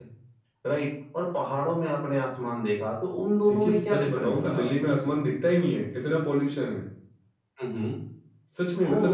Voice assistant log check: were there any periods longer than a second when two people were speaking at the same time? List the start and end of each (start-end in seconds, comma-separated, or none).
3.5-4.7